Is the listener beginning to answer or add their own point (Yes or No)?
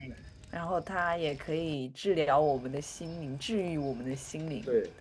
Yes